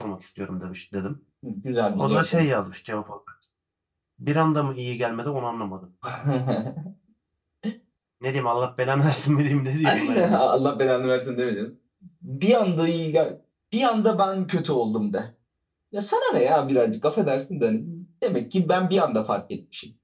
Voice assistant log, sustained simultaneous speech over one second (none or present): none